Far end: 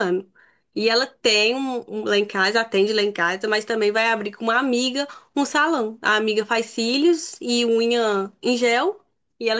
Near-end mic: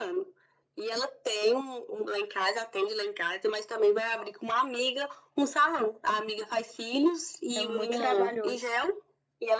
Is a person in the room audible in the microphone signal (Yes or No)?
Yes